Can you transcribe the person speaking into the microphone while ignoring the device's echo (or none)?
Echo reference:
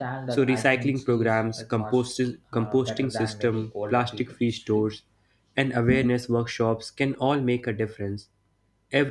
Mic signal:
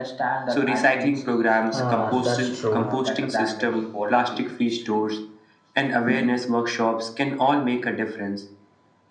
Uh, that's true.